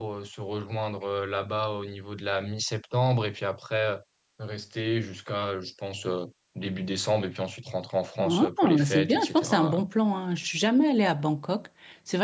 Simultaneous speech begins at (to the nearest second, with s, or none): 8 s